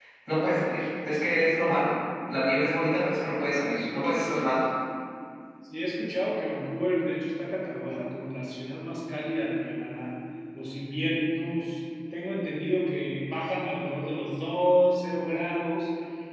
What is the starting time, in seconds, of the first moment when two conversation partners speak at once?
none

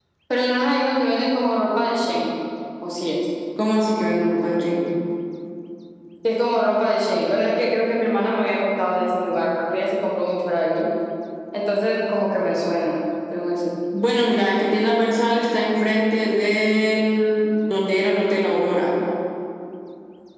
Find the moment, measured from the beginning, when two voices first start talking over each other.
none

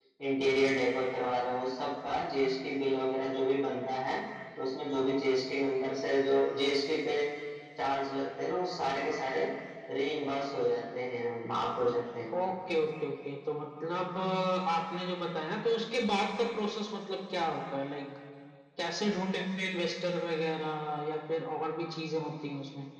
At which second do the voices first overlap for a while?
none

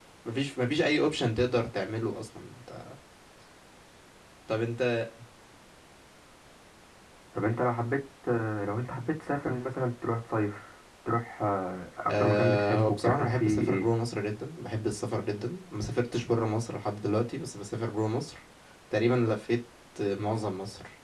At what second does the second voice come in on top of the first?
12.1 s

